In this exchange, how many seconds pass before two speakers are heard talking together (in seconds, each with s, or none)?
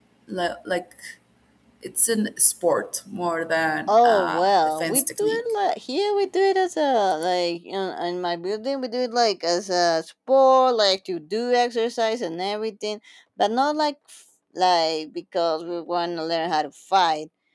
3.9 s